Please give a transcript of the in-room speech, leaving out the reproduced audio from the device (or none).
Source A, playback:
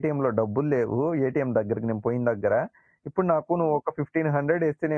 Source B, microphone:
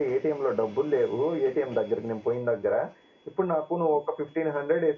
none